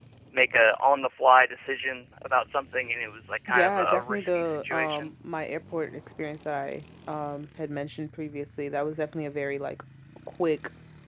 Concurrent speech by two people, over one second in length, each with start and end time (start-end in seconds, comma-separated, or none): 3.5-5.1